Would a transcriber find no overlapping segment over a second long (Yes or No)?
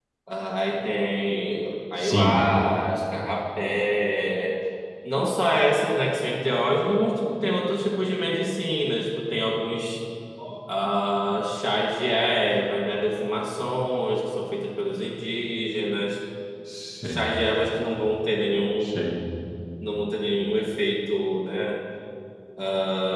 Yes